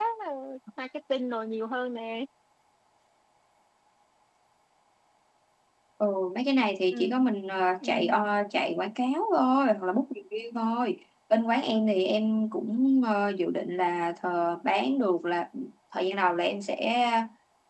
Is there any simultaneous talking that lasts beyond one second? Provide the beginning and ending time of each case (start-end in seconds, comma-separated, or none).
none